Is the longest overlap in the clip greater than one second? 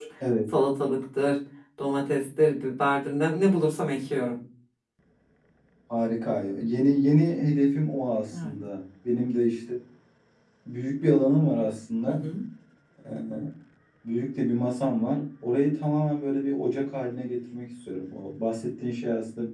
No

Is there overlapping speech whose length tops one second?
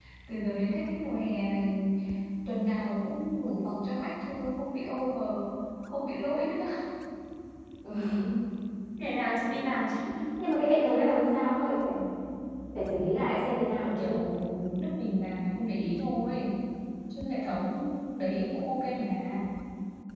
No

